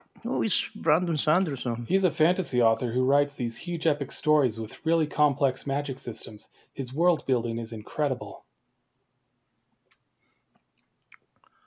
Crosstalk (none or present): none